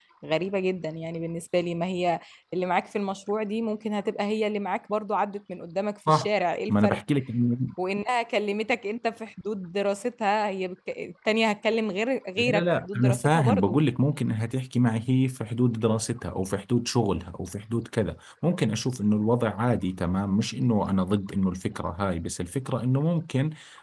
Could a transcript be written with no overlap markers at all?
No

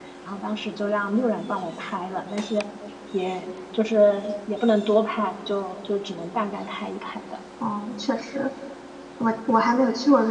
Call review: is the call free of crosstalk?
Yes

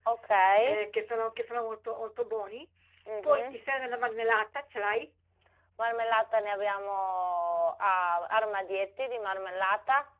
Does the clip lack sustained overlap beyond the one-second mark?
Yes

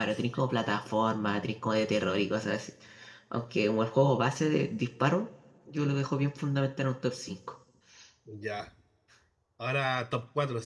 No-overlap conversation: Yes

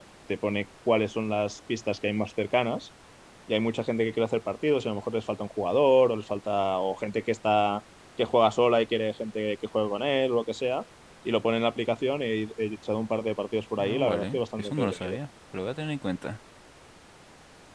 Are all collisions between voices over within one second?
No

